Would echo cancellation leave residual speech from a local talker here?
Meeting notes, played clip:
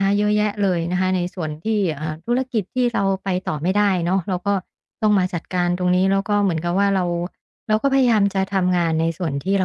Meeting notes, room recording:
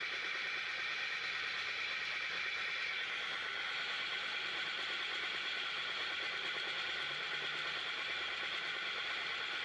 No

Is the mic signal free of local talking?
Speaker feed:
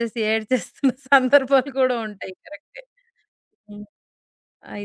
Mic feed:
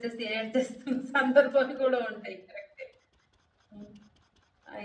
Yes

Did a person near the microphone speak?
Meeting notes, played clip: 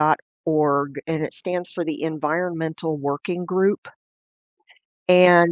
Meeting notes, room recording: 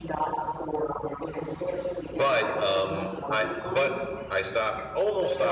Yes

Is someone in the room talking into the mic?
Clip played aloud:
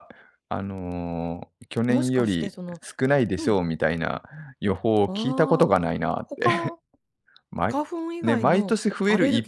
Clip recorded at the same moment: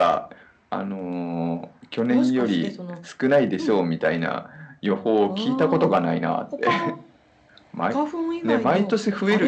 No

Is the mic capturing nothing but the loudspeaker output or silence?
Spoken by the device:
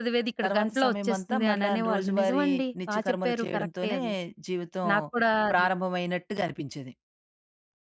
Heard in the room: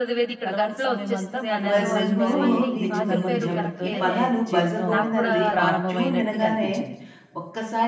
No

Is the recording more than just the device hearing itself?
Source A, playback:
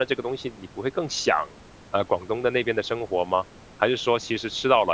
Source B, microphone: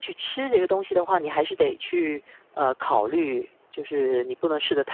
Yes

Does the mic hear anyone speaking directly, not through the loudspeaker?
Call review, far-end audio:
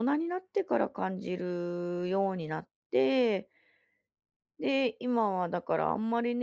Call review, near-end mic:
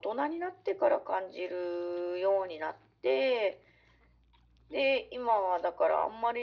No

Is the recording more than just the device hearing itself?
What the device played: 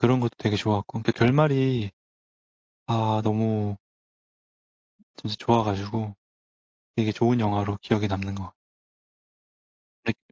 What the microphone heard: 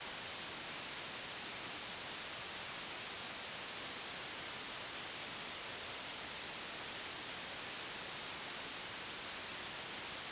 No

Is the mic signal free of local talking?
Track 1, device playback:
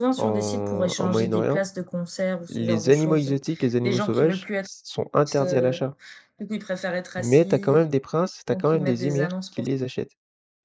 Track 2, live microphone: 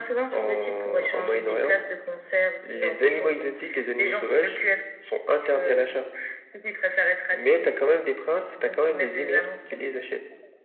Yes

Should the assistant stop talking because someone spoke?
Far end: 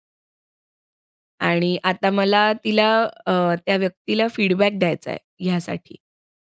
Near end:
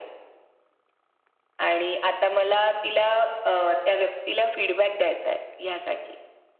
No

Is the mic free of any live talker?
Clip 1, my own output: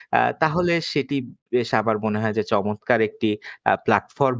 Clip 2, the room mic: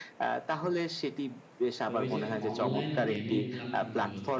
No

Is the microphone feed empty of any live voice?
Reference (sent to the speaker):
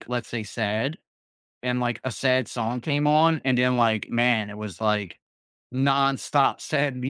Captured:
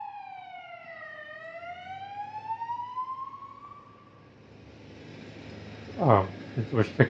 No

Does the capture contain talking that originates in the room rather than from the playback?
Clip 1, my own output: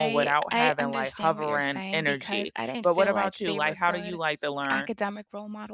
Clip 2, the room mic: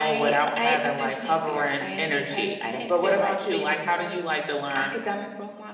No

